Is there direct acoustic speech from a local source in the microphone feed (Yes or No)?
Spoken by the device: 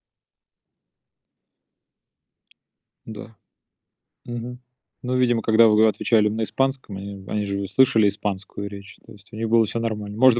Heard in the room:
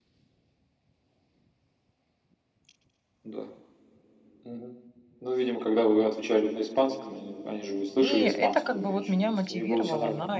Yes